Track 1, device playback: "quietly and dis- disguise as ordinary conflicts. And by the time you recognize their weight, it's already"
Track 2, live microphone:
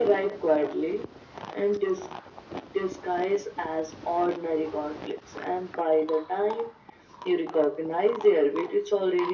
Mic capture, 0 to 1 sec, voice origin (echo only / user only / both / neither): echo only